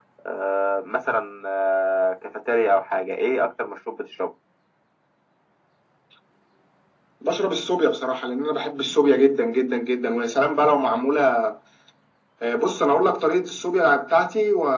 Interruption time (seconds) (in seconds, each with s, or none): none